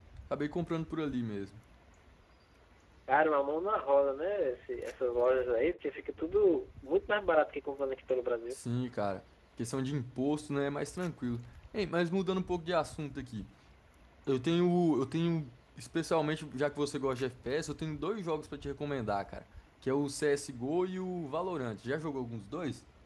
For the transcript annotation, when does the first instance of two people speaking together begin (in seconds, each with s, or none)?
none